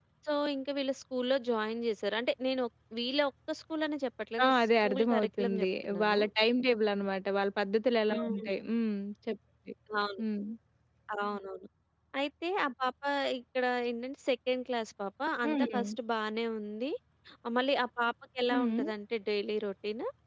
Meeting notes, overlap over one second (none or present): present